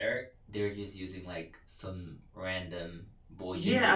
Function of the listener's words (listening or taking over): taking over